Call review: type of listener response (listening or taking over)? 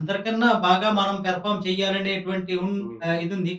listening